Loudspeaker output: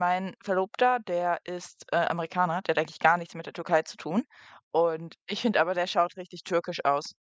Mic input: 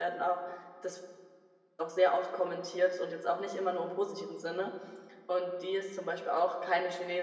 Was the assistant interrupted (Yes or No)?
Yes